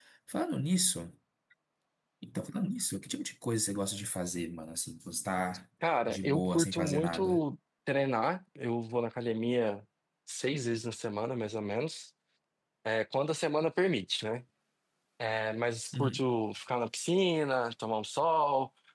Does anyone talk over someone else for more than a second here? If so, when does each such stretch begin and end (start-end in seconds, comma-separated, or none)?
6.1-7.4